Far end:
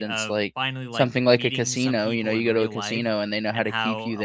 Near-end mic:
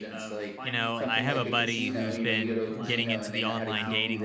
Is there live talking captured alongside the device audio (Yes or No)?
Yes